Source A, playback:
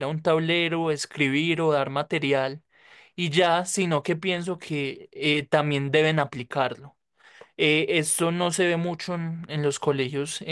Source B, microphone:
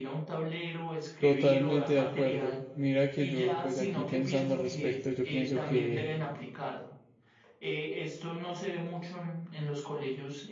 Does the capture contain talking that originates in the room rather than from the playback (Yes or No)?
Yes